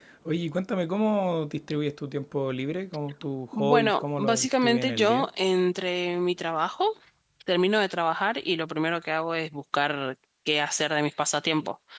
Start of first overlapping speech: 3.5 s

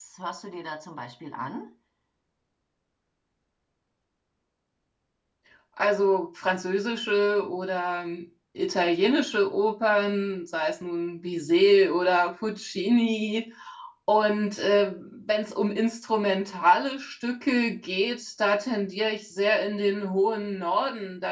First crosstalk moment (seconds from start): none

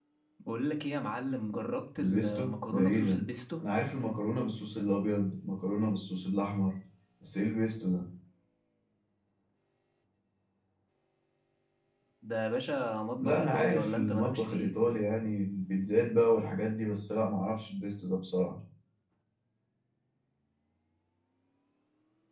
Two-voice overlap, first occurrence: 2.0 s

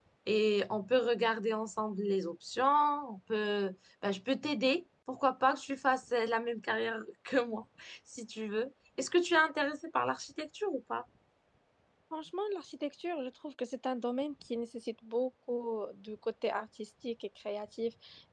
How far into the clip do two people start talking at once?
none

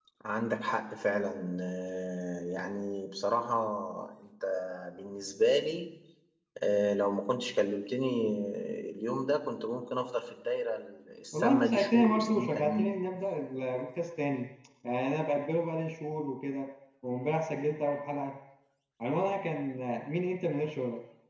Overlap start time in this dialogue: 11.3 s

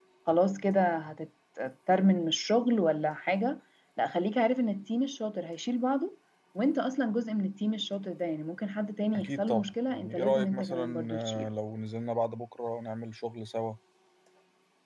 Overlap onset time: 9.1 s

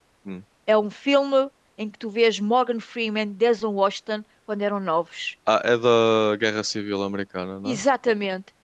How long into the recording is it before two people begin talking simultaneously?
none

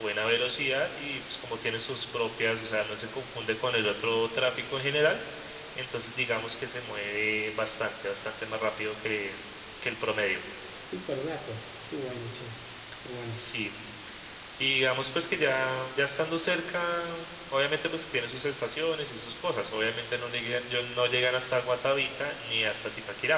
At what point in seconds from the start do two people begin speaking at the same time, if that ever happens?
none

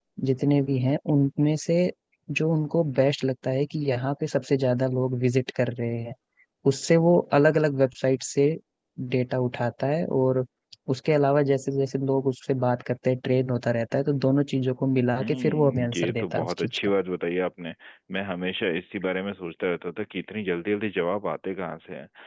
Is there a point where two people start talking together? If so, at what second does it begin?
15.2 s

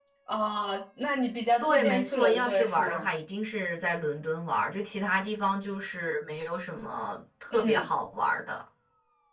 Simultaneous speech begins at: 1.6 s

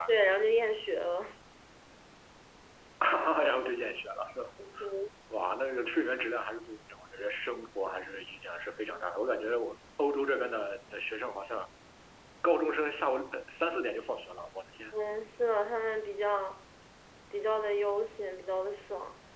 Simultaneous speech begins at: none

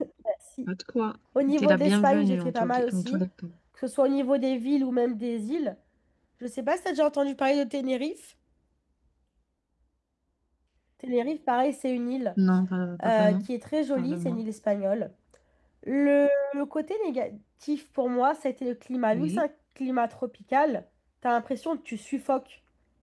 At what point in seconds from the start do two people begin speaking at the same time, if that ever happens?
1.6 s

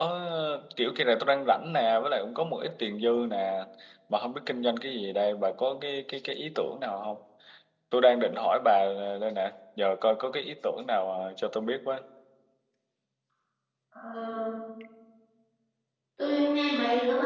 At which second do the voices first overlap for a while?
none

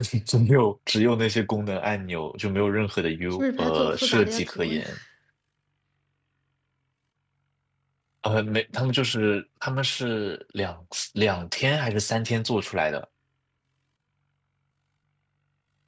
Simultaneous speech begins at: 3.3 s

